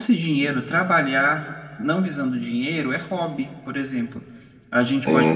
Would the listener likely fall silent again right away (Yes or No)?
Yes